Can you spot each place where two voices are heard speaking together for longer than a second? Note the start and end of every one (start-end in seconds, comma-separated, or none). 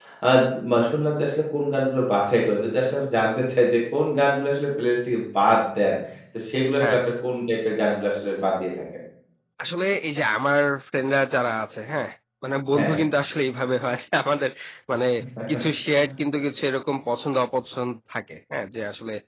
none